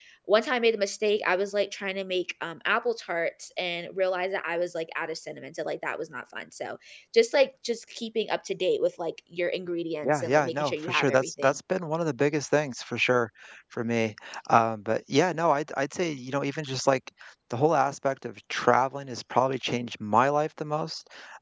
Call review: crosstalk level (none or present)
present